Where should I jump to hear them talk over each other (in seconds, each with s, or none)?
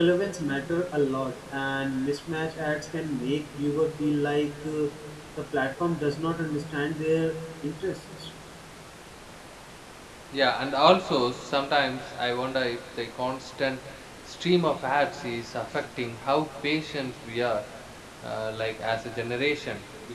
none